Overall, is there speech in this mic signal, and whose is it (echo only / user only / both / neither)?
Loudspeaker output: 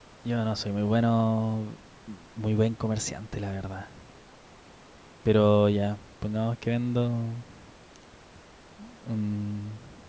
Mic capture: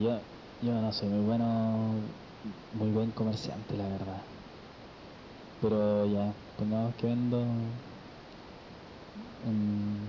echo only